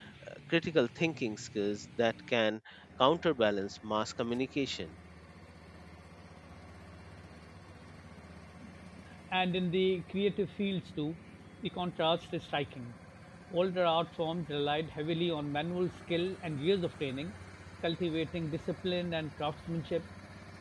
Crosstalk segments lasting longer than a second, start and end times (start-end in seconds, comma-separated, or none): none